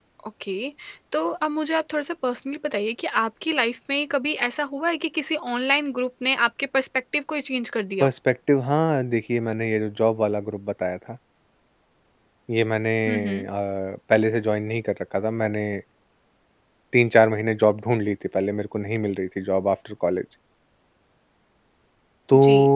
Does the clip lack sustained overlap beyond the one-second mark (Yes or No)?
Yes